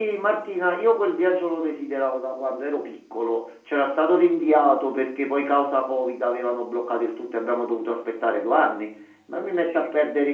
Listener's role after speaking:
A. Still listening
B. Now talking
A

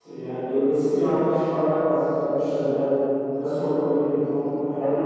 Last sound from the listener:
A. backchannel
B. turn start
B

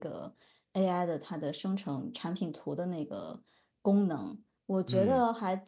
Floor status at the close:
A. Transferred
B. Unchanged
B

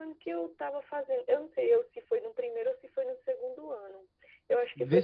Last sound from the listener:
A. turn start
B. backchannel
A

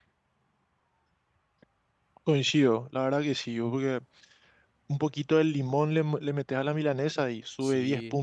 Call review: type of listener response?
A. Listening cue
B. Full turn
B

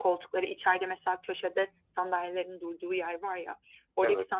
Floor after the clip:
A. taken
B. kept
B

